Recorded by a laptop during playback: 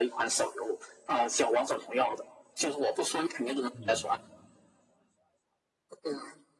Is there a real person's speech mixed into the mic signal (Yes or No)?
Yes